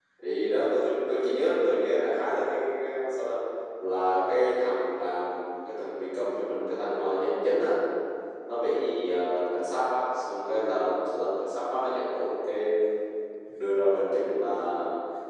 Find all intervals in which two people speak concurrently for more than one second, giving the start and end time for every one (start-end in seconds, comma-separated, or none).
none